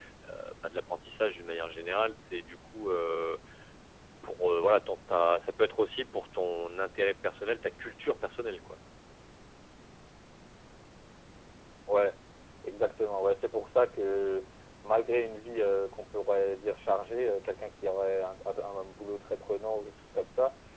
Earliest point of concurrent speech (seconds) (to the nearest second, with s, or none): none